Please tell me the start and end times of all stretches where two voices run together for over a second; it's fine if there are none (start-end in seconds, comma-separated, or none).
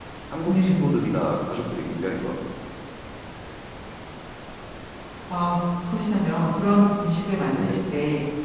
none